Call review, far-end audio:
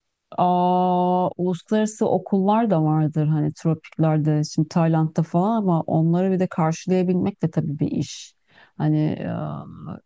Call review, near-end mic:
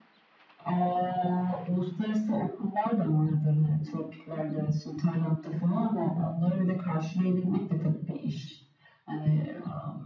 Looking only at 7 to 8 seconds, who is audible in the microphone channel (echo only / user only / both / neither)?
echo only